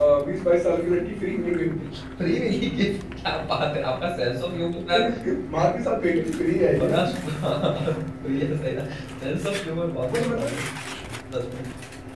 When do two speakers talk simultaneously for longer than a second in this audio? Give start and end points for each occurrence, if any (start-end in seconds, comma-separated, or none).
none